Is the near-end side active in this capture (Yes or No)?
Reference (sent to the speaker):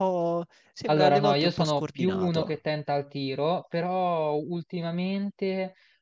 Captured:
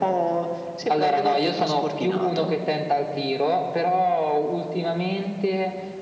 No